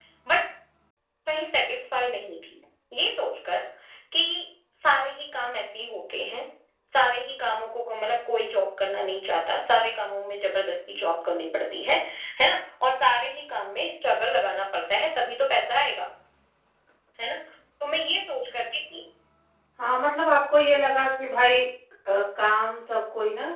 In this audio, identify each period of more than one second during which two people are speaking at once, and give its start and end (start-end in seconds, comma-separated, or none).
none